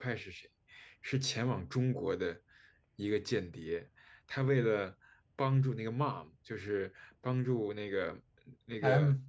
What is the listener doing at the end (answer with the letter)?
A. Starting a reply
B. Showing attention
B